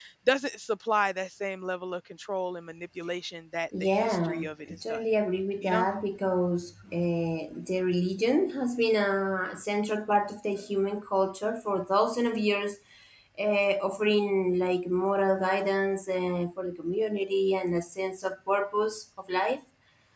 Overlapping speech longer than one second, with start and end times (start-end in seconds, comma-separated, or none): 3.8-5.0